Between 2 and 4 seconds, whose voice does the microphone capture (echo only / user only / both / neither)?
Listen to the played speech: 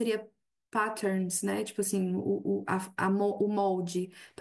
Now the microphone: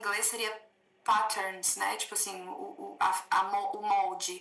echo only